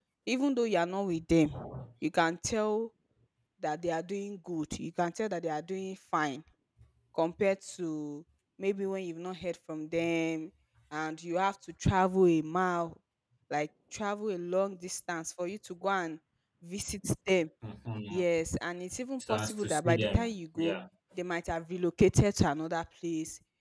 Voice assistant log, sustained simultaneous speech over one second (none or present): present